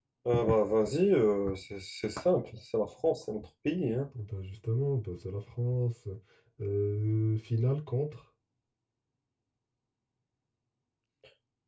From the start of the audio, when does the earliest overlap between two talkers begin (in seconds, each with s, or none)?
none